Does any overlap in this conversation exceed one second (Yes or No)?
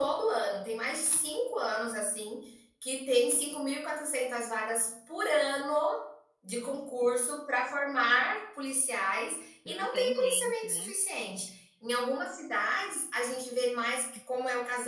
Yes